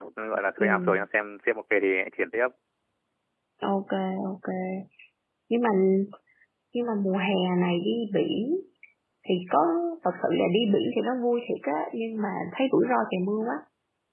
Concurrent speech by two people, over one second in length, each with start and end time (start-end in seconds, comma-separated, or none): none